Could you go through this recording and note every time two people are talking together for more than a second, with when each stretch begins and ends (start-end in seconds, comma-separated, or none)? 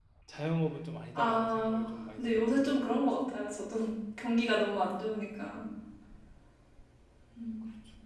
1.1-2.8